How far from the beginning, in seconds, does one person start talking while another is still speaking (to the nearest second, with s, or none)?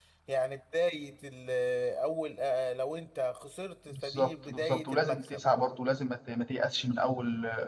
4 s